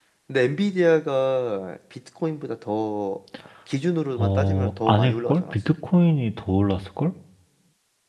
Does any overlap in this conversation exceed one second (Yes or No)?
Yes